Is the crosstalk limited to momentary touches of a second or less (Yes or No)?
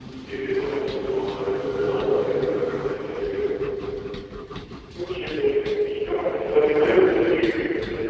Yes